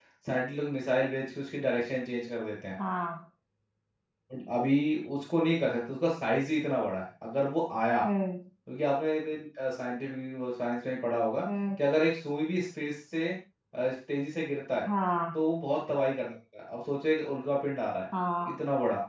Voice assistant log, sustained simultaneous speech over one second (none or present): none